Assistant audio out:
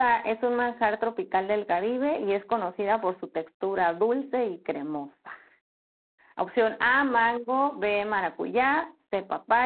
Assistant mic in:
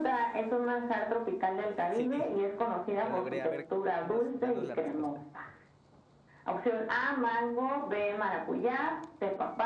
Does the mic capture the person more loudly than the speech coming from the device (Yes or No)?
No